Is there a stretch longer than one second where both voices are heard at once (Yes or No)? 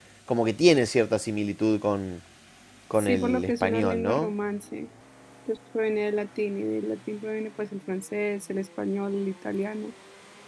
Yes